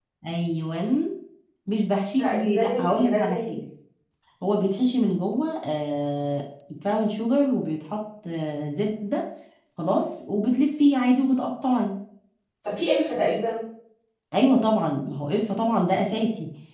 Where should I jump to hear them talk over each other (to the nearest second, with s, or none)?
2 s